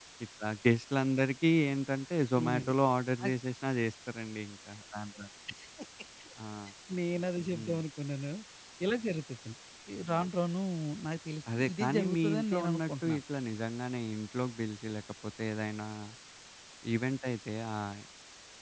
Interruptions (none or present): present